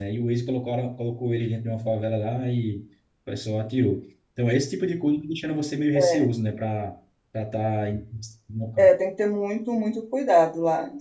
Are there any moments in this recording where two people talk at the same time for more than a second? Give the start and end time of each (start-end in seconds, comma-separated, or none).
none